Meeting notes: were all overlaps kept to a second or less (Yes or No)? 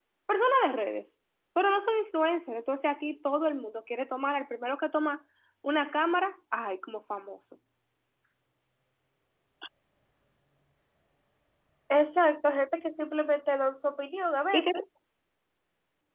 Yes